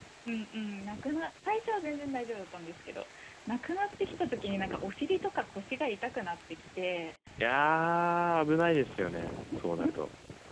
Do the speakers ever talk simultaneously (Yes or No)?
No